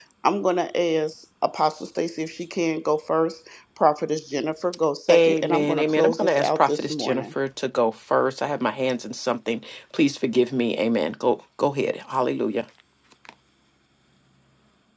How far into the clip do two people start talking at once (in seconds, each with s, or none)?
5.1 s